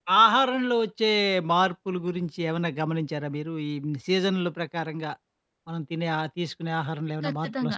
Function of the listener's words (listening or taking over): taking over